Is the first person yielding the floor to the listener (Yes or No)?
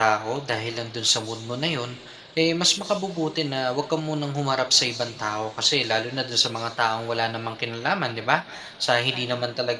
No